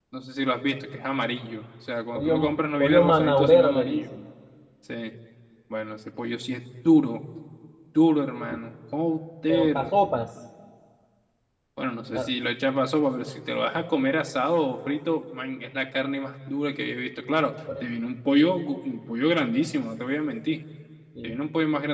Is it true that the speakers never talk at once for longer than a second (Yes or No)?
No